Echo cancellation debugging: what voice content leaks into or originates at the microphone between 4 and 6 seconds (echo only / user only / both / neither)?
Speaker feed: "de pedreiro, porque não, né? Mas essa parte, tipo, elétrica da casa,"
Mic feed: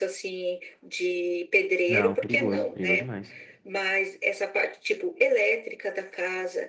echo only